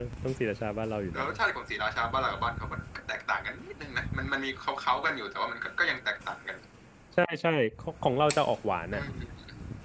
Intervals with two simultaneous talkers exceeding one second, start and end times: none

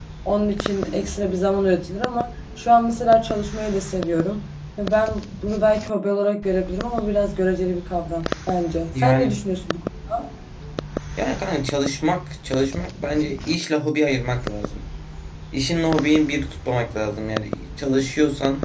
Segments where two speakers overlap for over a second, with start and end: none

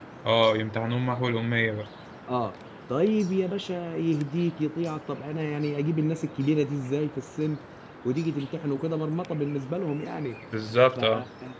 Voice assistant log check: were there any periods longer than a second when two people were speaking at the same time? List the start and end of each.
none

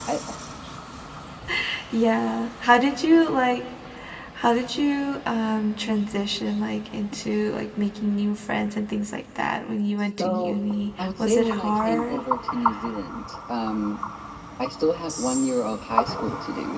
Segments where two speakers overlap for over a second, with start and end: 11.0-12.2

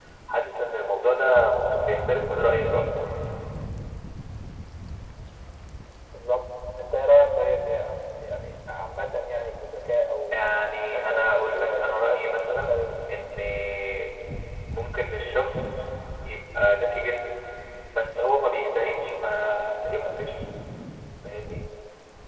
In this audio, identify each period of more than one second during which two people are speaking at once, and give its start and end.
10.9-12.9

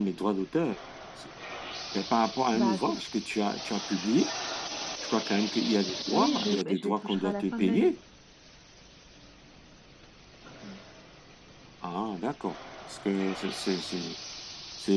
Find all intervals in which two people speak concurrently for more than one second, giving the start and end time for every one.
6.1-7.9

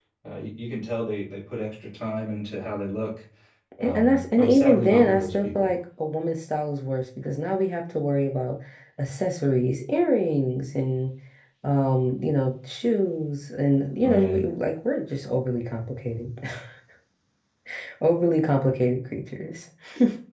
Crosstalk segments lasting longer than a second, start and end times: 3.8-5.7

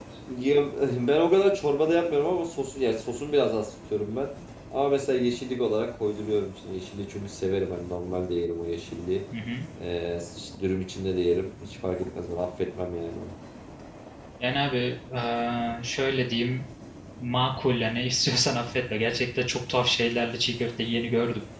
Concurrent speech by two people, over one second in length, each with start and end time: none

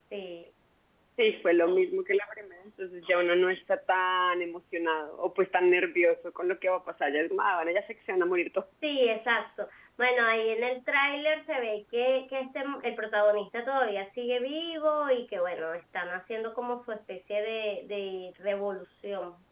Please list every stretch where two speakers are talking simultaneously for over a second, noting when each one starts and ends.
none

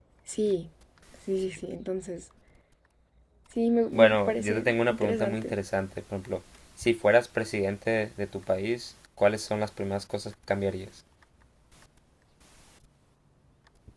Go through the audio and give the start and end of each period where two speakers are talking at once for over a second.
3.9-5.5

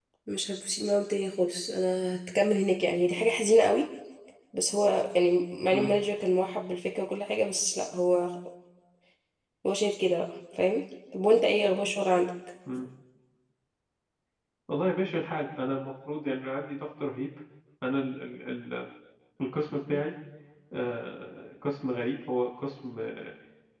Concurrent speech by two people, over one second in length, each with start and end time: none

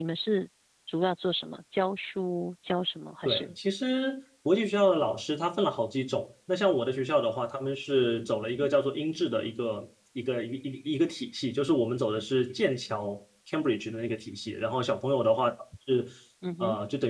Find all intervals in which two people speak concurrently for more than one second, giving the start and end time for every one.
none

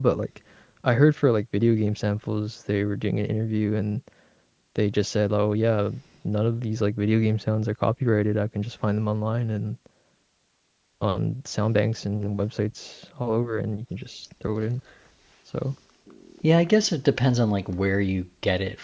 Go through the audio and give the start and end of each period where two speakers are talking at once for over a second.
none

